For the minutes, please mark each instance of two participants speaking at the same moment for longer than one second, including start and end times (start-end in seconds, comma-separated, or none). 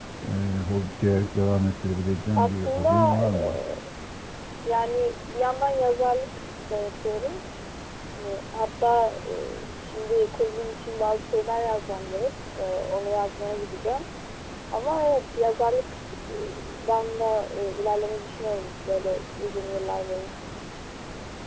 2.4-3.6